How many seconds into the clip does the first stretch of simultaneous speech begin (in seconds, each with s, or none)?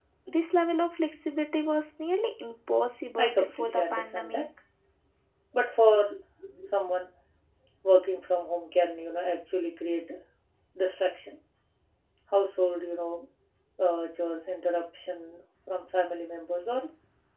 3.2 s